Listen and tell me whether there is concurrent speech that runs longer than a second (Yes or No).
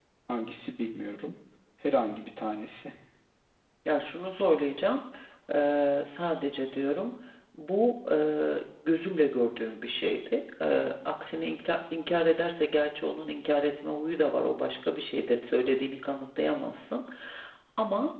No